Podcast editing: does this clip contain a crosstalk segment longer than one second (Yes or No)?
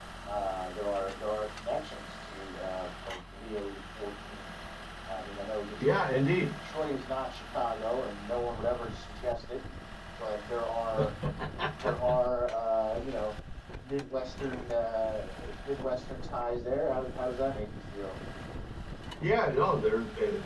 No